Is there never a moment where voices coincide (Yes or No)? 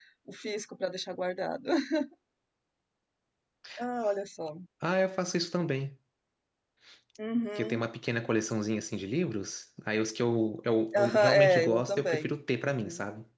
No